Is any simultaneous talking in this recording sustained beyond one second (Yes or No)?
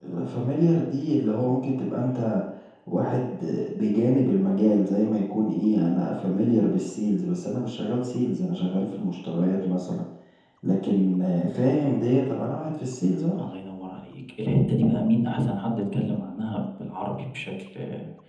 No